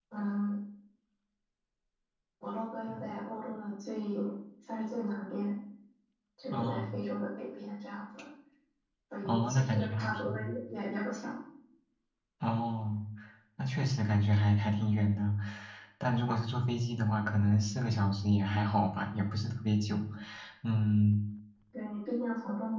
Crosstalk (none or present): present